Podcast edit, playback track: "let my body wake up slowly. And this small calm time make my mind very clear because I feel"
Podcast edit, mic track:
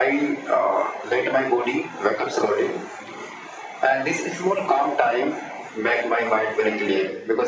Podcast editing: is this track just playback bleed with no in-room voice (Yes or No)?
Yes